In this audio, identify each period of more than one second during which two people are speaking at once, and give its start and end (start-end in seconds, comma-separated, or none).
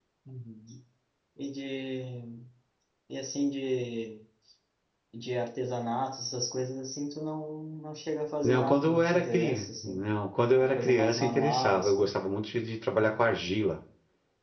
8.4-10.1, 10.6-12.1